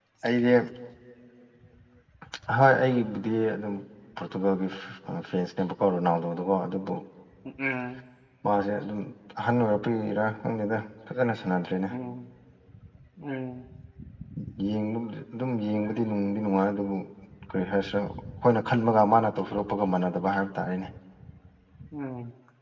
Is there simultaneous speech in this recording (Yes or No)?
No